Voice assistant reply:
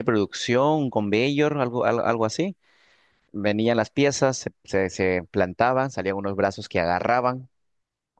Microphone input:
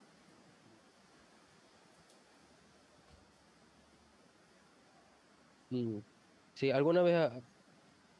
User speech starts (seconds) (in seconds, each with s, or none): 5.7 s